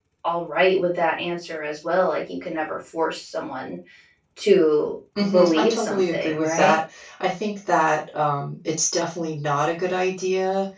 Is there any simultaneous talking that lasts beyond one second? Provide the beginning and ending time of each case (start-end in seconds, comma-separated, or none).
5.2-6.8